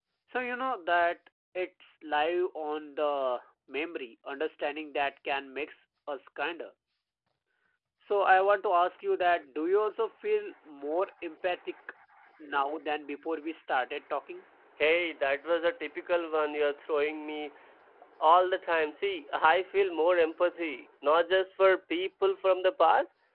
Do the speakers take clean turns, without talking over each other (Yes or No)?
Yes